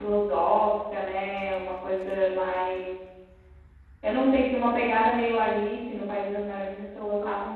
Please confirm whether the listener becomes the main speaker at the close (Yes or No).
No